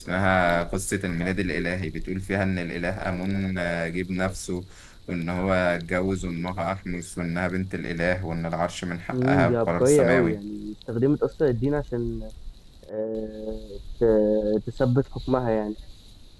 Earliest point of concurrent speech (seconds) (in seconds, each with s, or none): 9.1 s